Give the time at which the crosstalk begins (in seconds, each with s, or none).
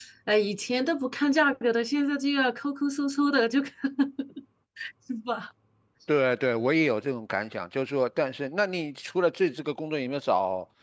none